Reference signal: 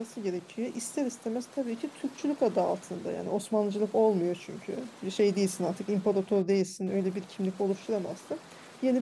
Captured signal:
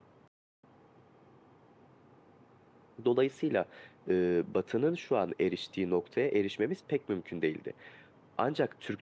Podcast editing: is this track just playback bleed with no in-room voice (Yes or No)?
No